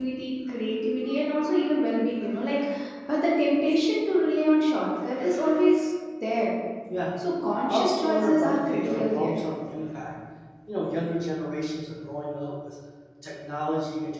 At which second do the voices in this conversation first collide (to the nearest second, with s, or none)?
8 s